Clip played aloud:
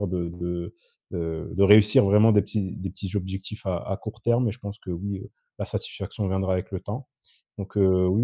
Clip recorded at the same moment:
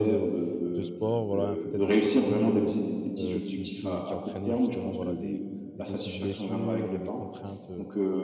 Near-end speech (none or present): present